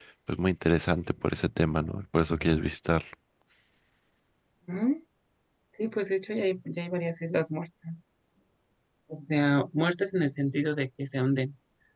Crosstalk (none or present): none